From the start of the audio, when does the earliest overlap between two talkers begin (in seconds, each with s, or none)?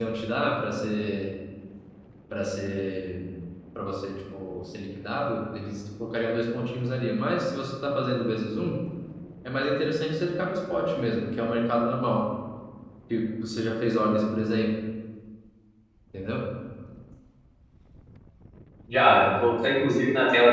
none